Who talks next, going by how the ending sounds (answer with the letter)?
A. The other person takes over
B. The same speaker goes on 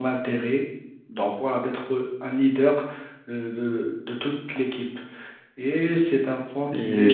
A